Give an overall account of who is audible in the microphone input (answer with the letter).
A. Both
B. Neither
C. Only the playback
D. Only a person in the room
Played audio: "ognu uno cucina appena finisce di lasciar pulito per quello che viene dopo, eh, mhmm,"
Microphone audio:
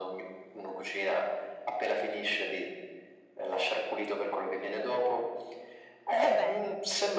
A